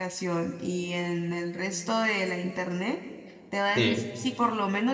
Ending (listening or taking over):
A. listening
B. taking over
A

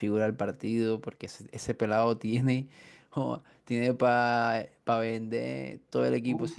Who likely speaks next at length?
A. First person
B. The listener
B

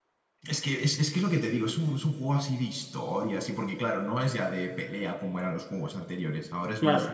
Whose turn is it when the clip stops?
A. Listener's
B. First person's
B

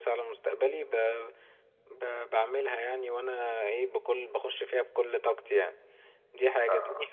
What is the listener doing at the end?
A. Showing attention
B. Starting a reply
A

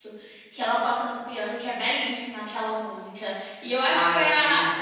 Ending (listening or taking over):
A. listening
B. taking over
A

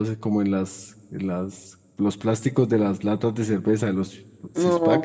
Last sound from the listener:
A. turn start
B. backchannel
A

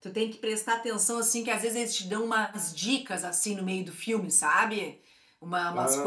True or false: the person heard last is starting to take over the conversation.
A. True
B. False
B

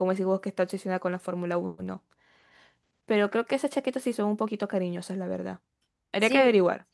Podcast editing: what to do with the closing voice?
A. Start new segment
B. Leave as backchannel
A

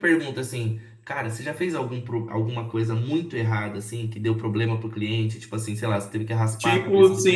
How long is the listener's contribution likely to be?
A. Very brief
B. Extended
B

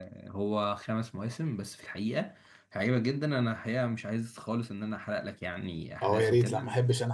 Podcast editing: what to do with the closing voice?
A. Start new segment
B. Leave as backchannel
A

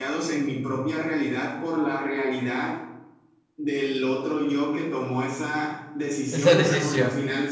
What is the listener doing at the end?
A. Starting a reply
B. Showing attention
B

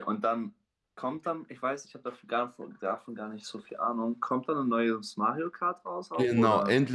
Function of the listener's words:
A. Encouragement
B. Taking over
B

